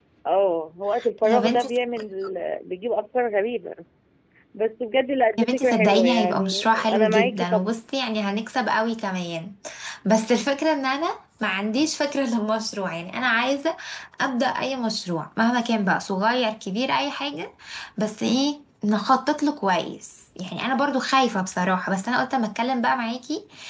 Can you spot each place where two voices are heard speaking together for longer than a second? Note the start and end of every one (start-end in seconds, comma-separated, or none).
5.4-7.7